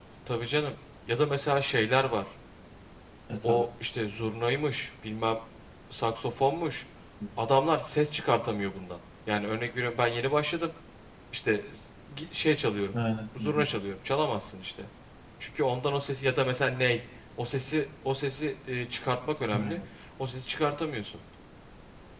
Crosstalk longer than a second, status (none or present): none